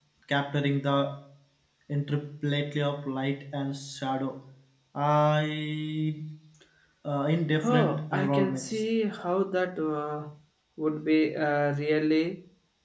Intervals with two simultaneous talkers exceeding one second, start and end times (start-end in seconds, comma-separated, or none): 7.6-8.8